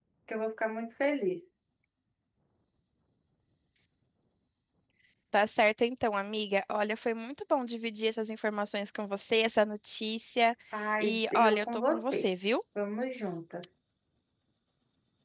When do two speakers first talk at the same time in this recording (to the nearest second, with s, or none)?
11 s